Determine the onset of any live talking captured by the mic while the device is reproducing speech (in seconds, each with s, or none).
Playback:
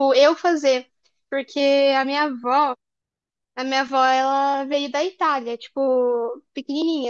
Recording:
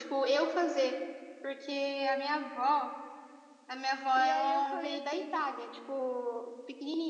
4.2 s